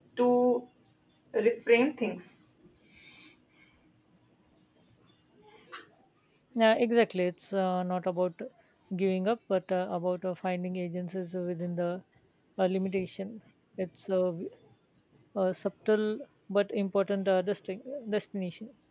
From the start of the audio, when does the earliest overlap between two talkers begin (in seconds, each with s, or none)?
none